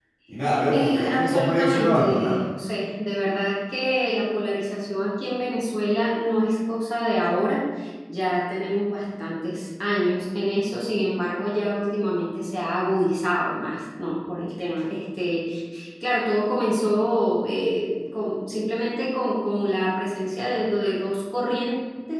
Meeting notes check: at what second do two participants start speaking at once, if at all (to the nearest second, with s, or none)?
1 s